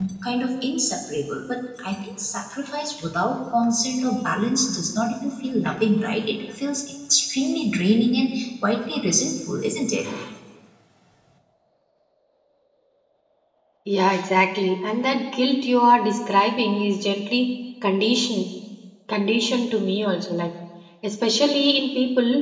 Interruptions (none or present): none